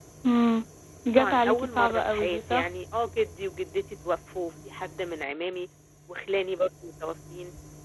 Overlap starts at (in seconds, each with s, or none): 1.1 s